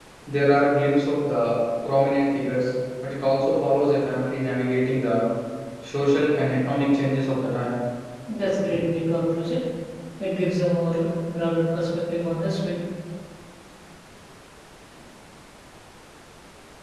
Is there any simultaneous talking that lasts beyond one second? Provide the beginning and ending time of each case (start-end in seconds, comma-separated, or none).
none